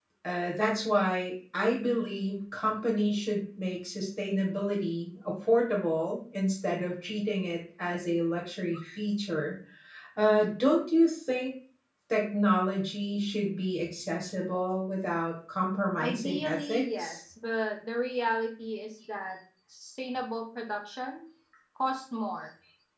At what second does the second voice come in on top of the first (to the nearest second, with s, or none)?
16 s